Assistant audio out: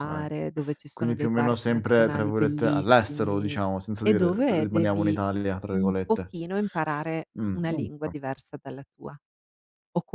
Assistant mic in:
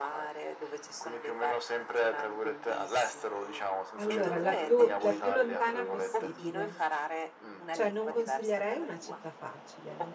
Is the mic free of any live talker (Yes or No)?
No